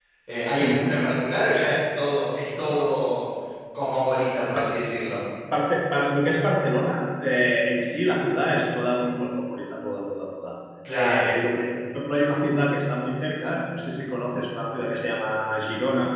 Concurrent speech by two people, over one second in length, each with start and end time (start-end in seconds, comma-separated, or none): none